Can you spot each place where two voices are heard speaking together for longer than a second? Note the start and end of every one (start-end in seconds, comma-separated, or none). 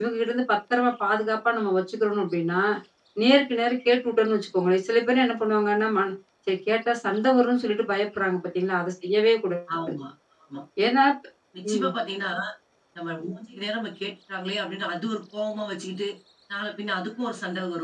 none